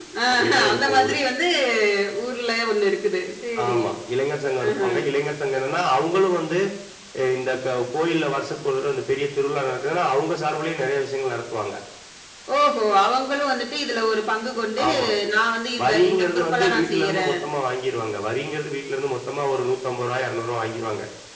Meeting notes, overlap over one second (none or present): present